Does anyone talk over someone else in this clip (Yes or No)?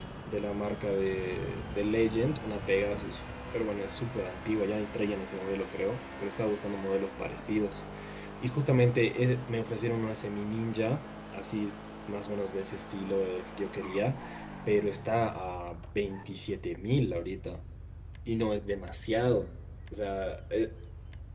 No